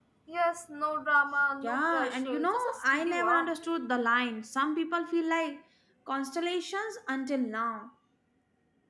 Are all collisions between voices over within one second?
No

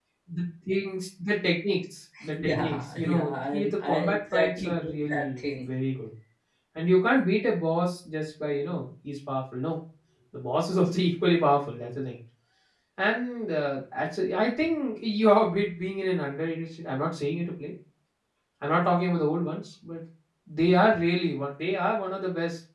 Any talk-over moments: Yes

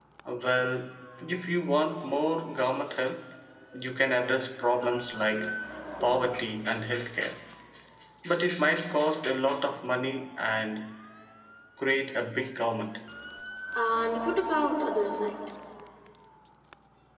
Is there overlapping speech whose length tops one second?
No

